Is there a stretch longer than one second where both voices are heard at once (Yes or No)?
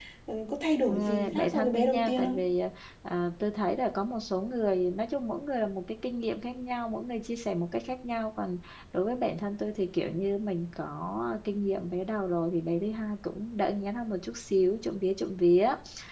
Yes